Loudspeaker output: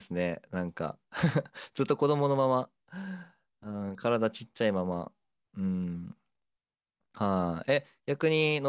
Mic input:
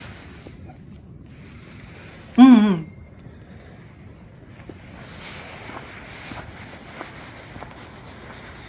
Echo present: No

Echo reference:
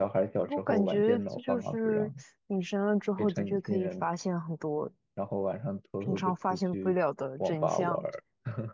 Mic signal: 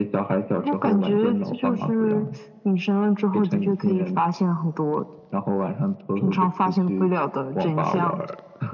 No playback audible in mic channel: No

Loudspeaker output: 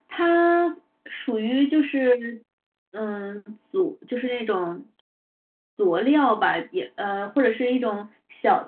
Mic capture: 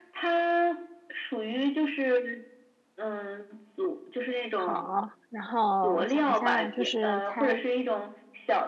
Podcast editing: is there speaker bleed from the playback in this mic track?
Yes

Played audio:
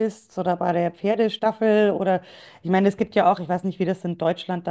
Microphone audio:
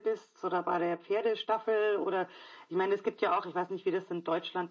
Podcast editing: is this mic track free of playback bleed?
No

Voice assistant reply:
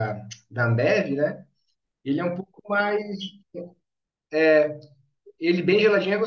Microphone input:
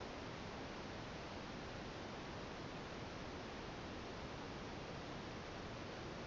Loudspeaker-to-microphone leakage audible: No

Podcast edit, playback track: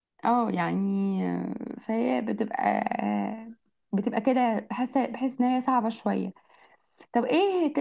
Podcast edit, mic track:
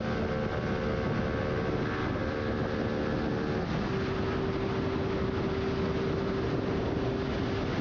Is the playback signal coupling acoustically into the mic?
No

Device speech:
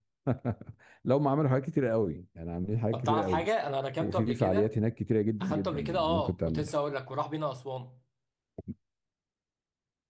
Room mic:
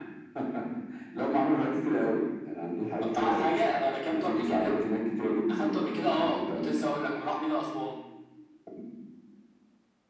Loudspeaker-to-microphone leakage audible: Yes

